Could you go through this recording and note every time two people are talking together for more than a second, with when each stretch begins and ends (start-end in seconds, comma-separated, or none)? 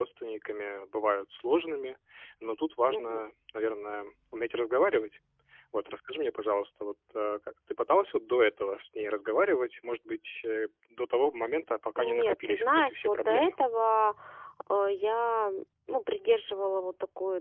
11.9-13.5